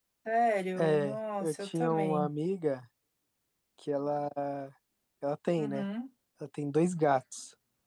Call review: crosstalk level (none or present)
present